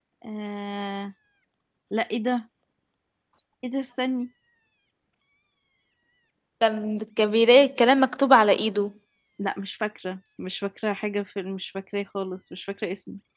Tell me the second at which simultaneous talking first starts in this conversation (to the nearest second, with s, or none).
none